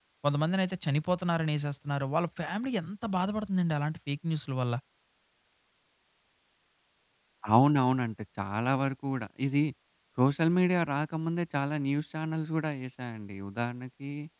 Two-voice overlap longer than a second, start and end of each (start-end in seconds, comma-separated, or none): none